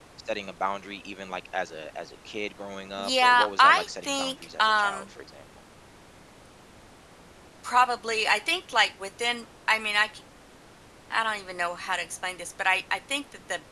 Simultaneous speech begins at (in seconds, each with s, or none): 3.0 s